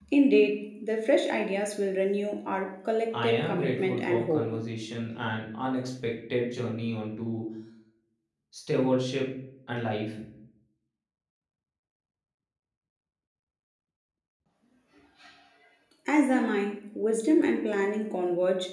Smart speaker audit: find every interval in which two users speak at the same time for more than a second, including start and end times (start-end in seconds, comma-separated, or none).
3.2-4.5